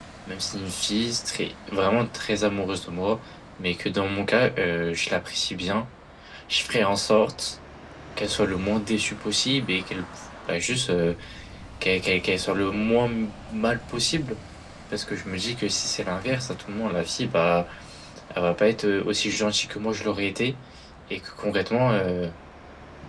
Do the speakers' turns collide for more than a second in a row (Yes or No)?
No